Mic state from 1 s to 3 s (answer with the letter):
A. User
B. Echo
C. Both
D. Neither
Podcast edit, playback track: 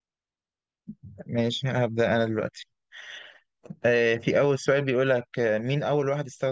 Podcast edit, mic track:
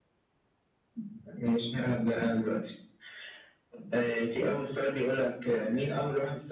B